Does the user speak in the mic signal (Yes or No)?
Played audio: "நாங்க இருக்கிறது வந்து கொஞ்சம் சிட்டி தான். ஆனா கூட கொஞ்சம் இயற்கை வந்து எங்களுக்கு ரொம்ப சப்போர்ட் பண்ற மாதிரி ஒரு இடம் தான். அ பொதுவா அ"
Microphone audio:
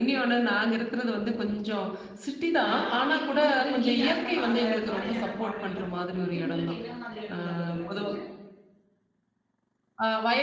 Yes